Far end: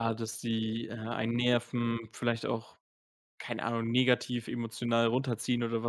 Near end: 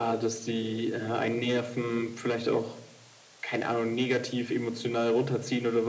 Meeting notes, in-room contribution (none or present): none